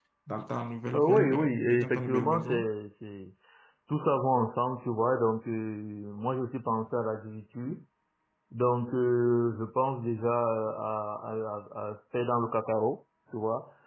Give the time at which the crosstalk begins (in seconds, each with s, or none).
0.9 s